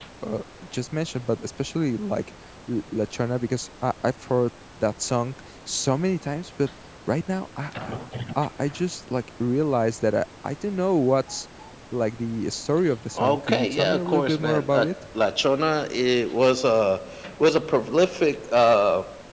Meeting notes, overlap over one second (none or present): present